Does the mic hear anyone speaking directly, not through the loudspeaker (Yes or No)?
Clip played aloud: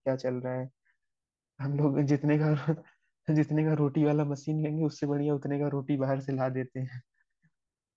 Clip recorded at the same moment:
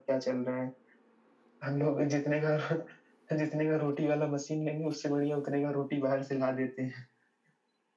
No